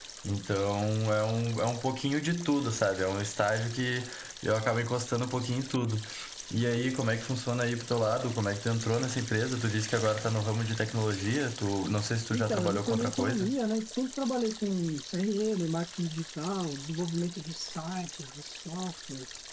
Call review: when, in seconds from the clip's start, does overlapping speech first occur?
12.3 s

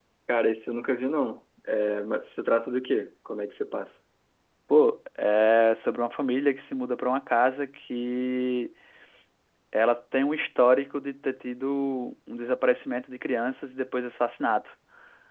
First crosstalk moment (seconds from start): none

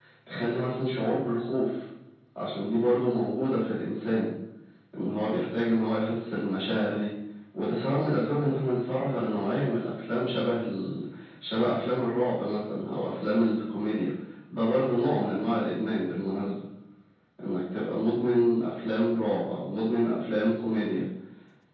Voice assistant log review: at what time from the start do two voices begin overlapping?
none

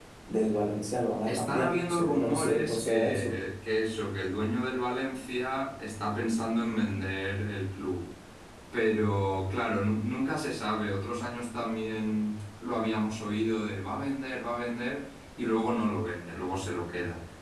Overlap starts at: 1.3 s

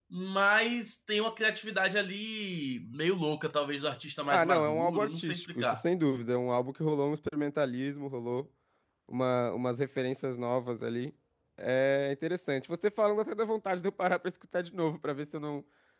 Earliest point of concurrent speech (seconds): 4.3 s

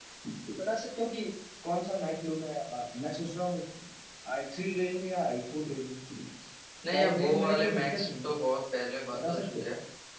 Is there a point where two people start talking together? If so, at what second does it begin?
6.9 s

